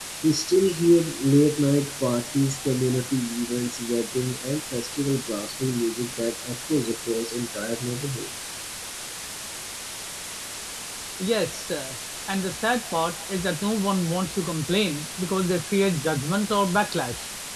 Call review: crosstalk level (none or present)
none